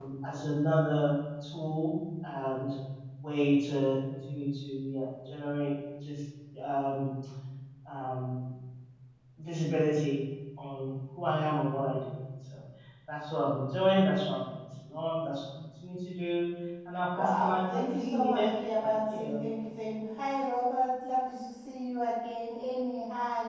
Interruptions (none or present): present